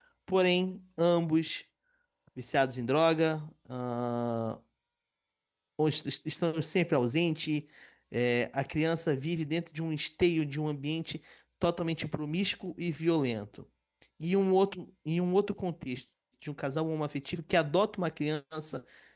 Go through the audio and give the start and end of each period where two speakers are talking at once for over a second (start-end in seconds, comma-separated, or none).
none